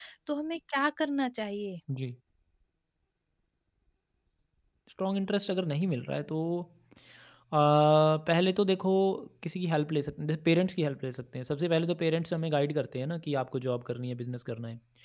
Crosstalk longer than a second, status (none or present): none